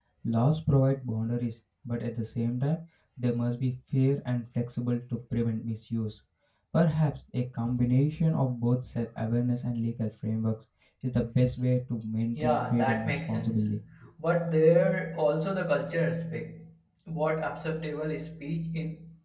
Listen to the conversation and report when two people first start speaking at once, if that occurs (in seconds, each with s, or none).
12.3 s